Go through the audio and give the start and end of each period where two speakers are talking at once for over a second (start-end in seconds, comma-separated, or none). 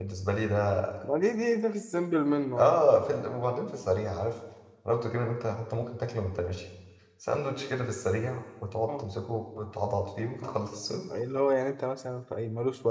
none